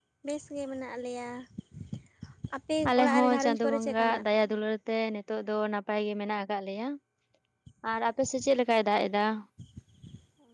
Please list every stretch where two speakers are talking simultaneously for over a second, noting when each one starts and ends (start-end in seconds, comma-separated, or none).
2.9-4.2